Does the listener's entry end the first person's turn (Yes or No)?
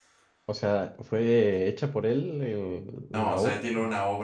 Yes